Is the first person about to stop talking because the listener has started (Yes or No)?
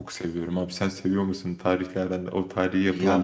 Yes